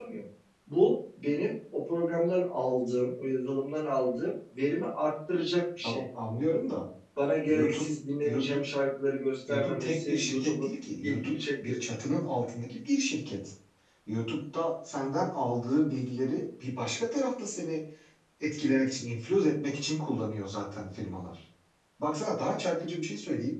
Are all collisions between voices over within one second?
No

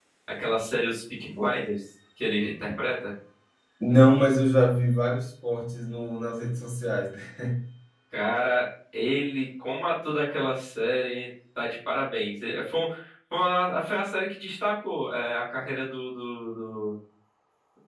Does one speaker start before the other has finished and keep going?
No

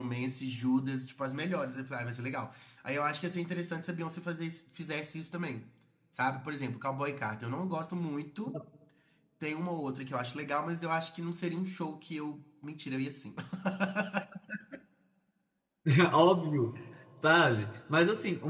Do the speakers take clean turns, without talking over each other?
Yes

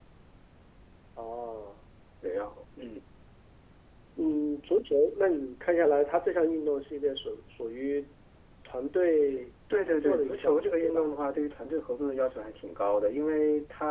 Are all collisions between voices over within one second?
No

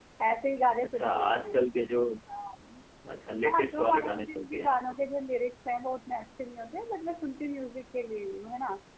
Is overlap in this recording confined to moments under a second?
No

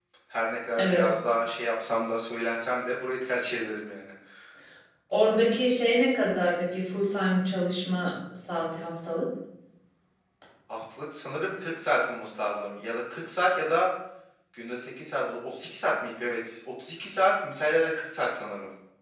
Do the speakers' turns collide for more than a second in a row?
No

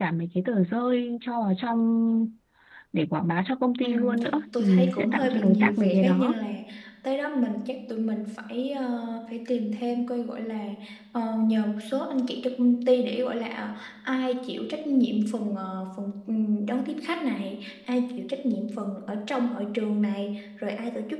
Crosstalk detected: Yes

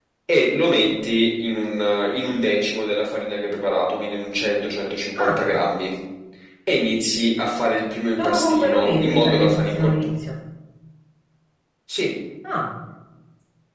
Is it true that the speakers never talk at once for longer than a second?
No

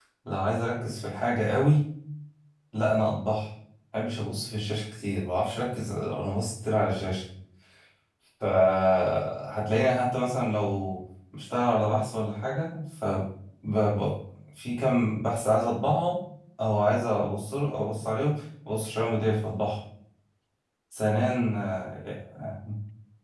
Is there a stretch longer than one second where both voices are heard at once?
No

